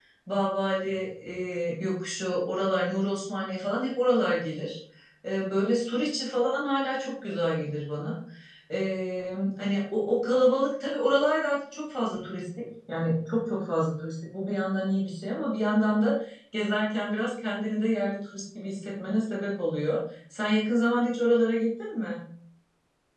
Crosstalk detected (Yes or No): No